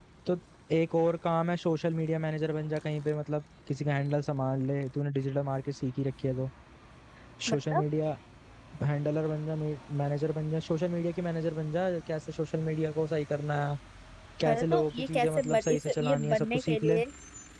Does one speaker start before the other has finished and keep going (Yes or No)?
Yes